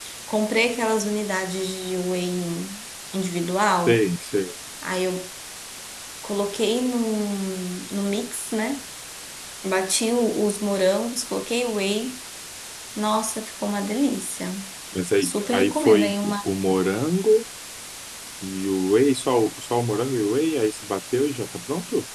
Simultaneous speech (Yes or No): Yes